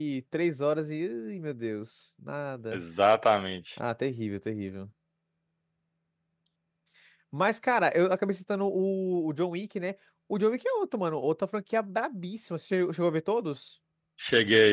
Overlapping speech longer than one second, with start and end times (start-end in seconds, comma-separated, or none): none